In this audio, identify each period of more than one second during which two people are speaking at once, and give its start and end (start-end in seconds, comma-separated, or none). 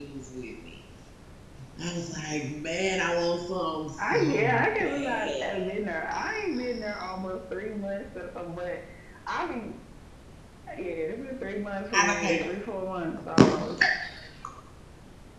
4.1-5.5